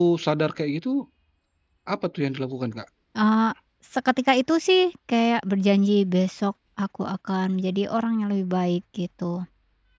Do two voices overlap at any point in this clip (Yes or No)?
No